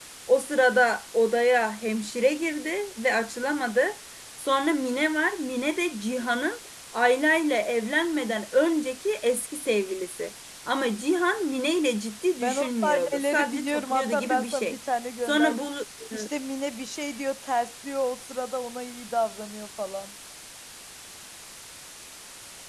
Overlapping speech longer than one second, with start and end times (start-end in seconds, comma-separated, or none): 12.4-14.8